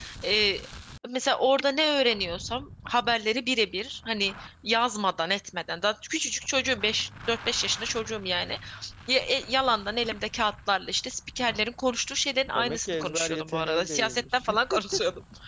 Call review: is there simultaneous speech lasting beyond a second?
Yes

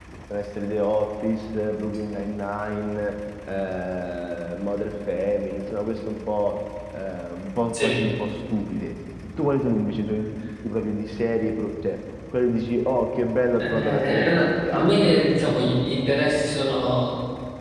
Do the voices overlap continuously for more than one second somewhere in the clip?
Yes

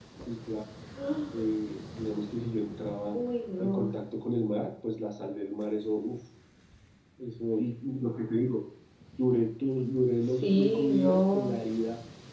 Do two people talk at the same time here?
Yes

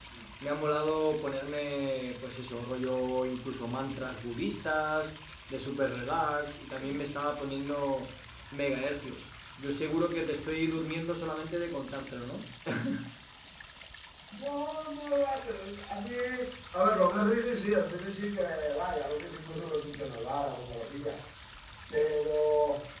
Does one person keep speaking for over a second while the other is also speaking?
No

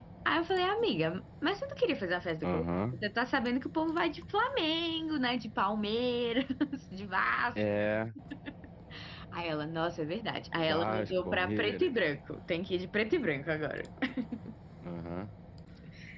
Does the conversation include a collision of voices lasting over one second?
Yes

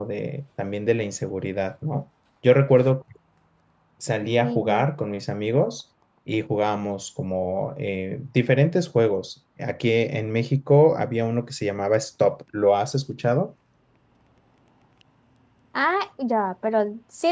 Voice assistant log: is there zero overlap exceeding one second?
Yes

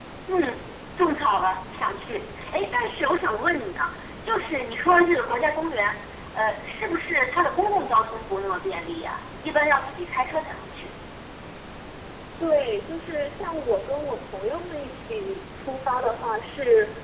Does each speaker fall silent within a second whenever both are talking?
Yes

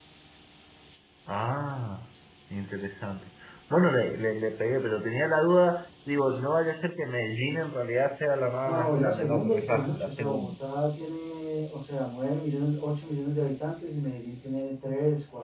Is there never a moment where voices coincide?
No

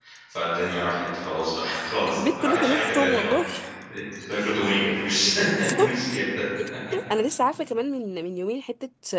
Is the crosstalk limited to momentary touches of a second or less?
No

